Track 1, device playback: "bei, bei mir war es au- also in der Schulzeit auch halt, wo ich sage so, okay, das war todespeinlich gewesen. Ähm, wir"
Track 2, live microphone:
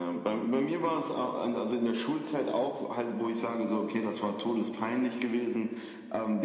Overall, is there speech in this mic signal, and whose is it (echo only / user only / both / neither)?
echo only